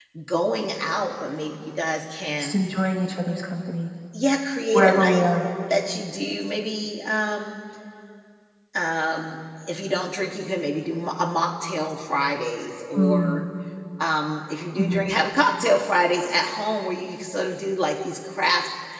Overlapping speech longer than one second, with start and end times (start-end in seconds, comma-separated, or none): none